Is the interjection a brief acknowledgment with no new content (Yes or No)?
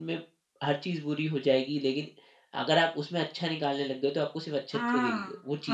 No